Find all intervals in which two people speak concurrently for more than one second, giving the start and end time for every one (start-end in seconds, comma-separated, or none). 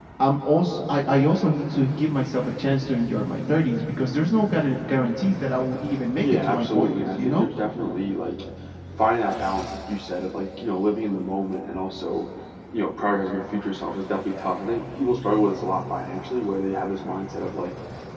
6.2-7.5